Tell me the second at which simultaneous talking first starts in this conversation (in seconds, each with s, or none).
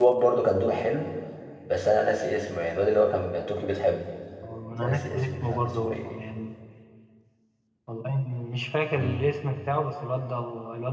4.8 s